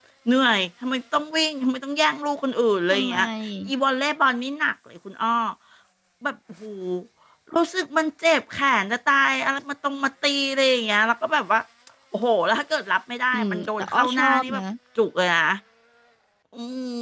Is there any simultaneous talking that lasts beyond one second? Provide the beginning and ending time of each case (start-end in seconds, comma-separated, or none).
13.3-14.6